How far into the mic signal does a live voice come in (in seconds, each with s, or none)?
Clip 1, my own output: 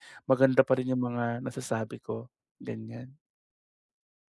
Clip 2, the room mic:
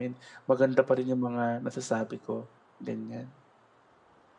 none